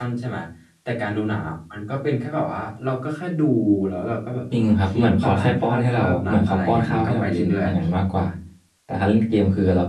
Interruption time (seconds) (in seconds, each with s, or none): 4.9 s